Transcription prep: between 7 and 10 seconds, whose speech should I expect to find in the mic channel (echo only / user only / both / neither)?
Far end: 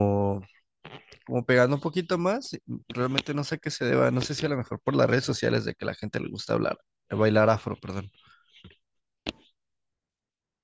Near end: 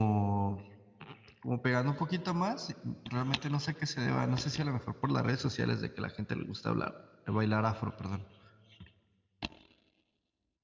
echo only